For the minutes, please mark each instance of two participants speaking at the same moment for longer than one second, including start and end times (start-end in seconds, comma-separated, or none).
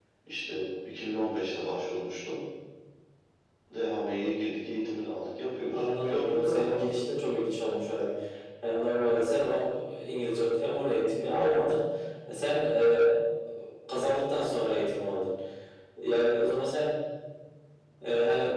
5.7-7.0